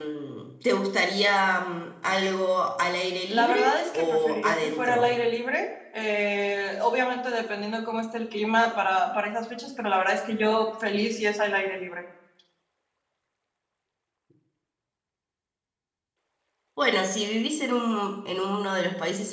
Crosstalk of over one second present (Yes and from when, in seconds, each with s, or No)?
Yes, from 3.3 s